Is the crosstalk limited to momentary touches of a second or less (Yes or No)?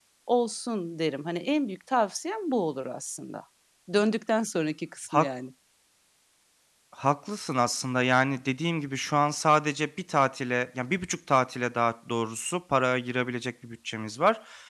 Yes